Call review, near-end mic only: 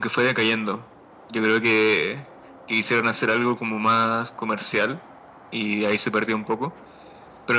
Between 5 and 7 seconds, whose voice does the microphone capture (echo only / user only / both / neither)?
echo only